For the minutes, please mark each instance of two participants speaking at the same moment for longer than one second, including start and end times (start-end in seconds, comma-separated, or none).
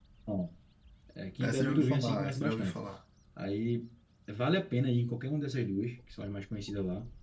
1.4-2.8